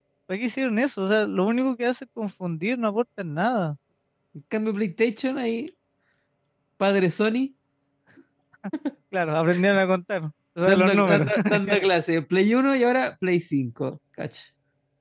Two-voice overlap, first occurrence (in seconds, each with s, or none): 10.6 s